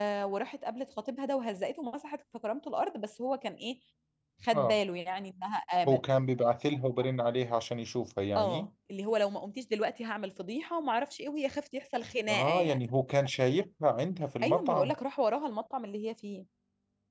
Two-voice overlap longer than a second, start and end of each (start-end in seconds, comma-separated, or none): none